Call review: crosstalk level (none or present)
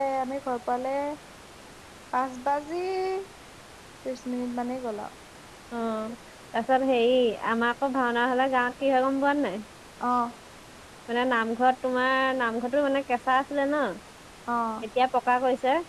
none